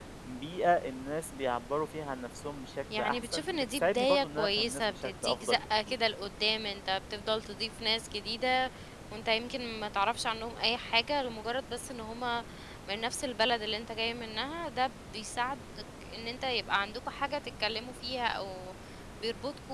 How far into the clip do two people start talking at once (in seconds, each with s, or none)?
2.9 s